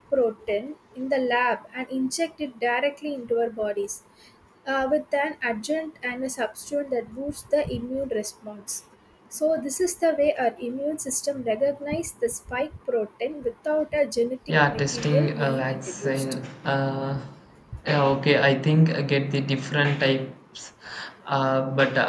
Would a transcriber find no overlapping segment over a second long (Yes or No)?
No